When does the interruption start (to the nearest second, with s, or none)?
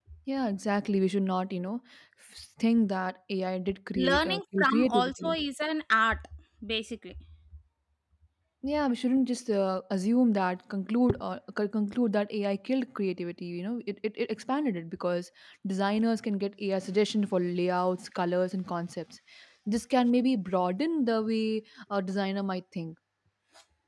4 s